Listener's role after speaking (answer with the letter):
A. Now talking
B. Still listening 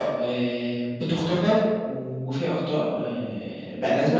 B